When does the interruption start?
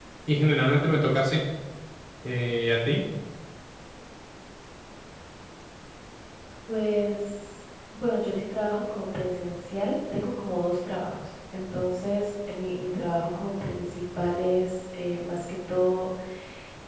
none

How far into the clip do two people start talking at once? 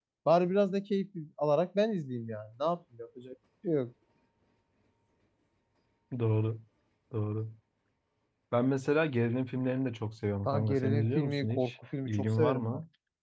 10.4 s

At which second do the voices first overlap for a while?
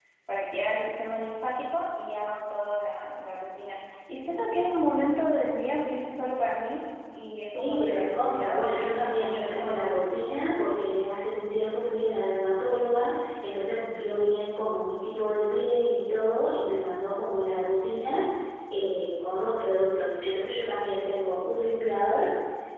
7.4 s

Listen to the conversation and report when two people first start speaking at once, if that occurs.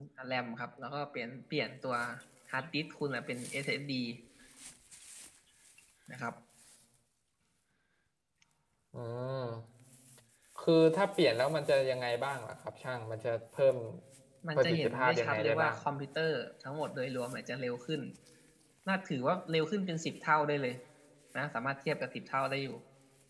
14.6 s

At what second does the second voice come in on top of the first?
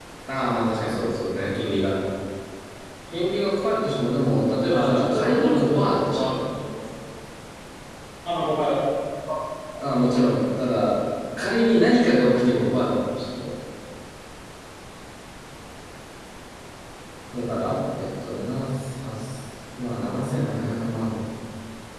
4.7 s

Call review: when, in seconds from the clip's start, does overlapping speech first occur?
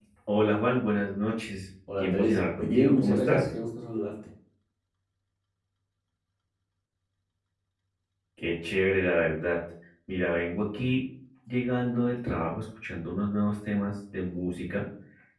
1.9 s

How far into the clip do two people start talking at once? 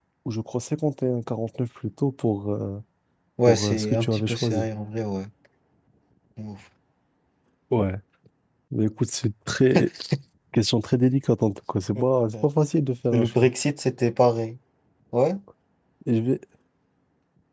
3.5 s

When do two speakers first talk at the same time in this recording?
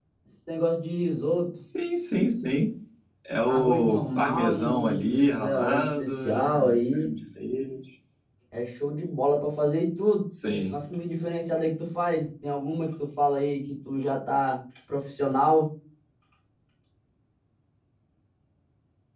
3.5 s

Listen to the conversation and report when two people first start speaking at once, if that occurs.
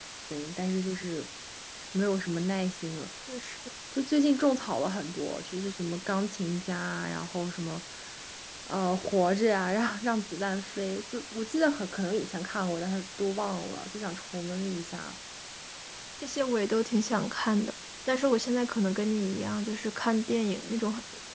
none

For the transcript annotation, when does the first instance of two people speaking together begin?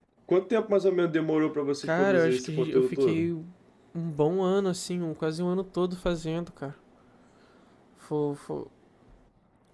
1.8 s

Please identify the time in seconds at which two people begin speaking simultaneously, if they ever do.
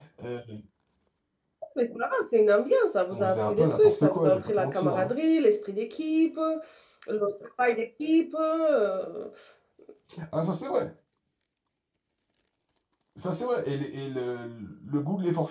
3.1 s

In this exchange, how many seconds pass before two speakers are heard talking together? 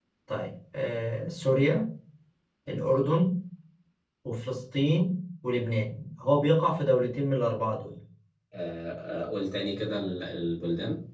none

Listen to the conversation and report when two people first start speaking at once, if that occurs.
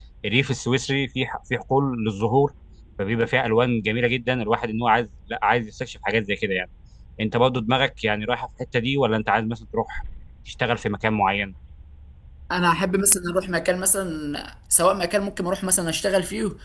none

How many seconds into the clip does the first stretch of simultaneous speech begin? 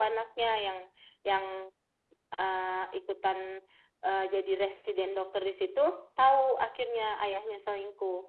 none

